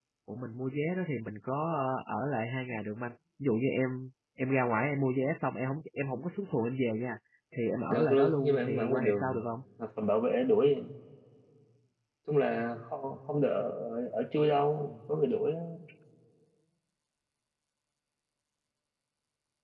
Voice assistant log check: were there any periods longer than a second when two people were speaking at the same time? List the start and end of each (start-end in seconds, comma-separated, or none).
7.9-9.4